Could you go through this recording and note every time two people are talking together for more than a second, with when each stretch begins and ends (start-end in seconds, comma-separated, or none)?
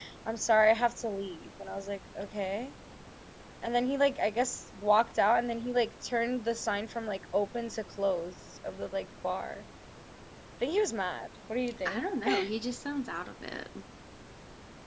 none